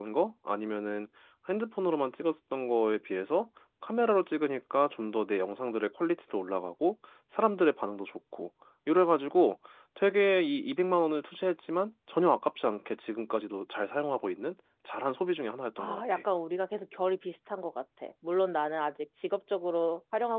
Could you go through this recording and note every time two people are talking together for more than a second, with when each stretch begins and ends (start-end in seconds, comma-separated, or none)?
none